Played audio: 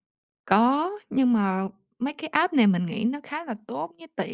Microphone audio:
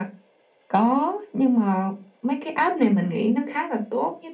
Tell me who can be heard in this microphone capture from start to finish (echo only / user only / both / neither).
echo only